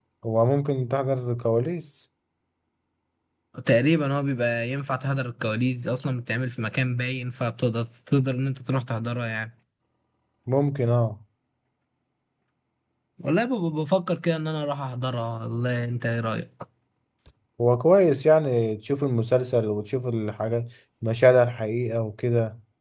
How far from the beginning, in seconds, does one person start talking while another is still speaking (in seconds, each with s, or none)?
none